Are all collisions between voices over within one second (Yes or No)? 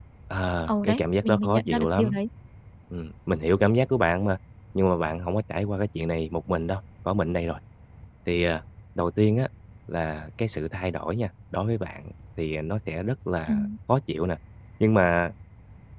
No